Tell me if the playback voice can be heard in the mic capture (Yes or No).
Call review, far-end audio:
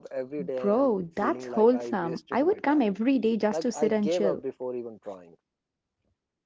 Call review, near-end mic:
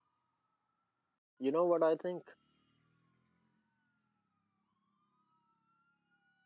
No